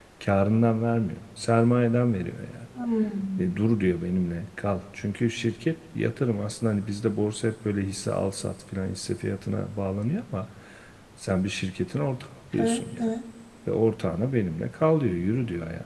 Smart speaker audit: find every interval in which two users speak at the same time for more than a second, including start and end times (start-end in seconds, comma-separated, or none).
none